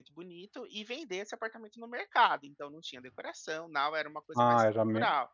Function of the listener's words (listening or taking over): taking over